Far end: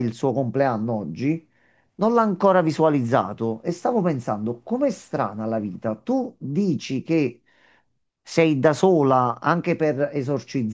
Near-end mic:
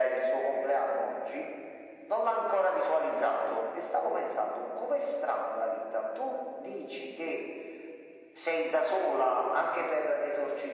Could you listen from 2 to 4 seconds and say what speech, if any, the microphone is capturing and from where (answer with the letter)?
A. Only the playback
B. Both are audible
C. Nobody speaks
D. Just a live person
A